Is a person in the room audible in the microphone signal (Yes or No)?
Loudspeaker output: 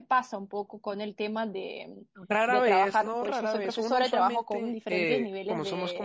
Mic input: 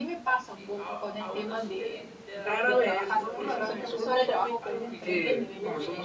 Yes